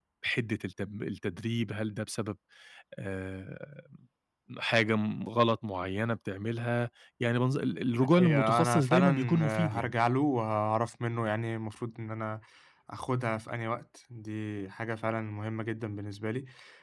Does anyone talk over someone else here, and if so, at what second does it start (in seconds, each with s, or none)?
8.0 s